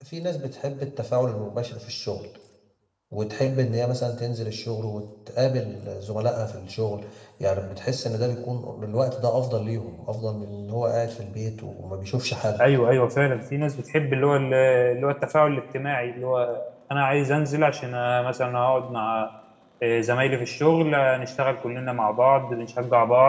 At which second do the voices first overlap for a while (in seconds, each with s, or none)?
none